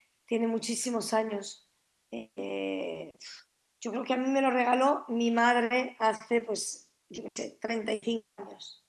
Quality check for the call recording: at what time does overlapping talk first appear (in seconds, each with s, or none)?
none